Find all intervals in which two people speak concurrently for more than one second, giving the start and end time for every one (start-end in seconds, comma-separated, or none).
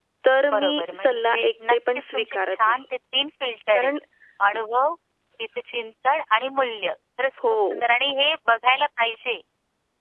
0.5-2.8